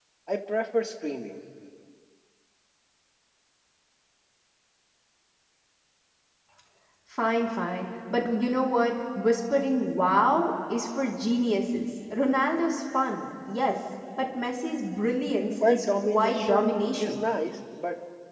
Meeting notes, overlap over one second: present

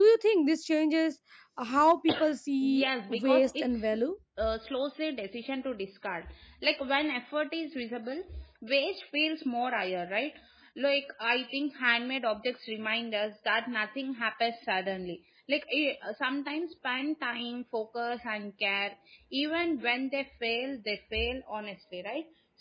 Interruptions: present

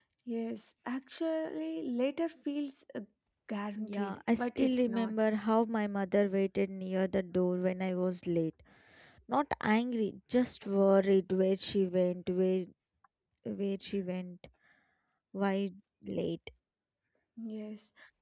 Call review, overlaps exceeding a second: present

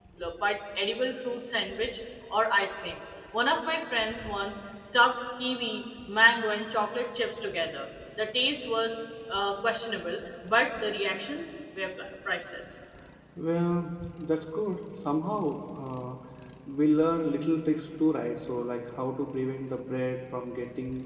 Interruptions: none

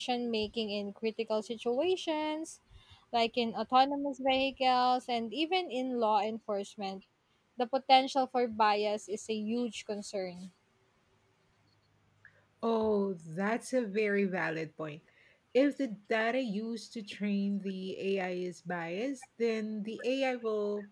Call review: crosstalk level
none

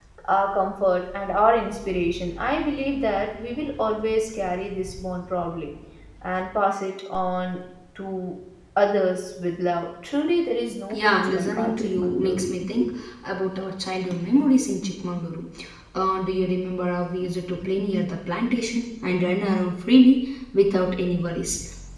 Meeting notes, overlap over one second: present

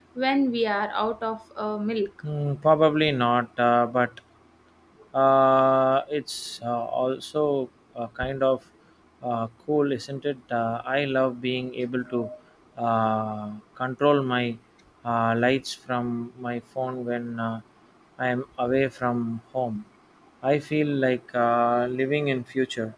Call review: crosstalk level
none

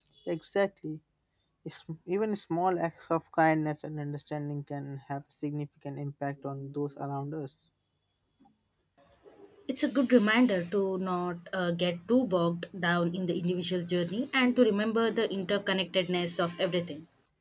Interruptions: none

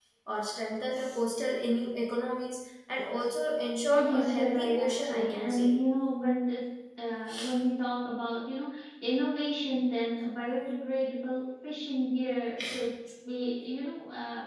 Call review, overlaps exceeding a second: present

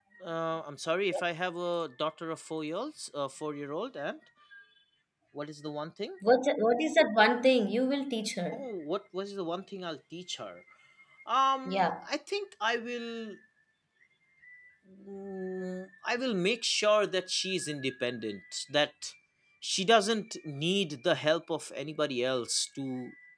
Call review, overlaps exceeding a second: none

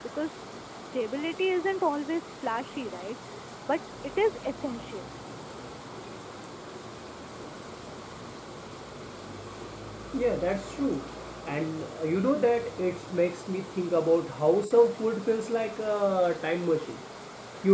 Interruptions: none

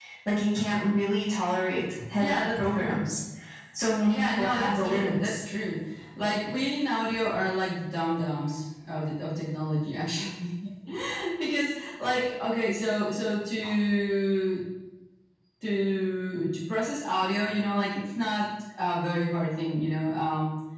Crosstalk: present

